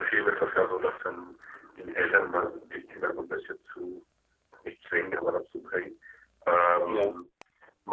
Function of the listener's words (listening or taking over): listening